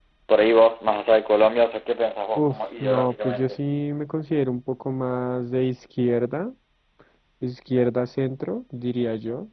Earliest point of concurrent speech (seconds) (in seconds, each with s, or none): 2.4 s